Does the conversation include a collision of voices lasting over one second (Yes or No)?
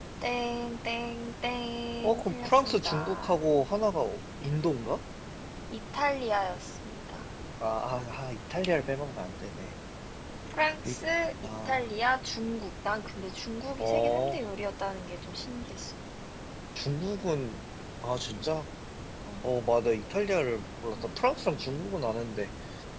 Yes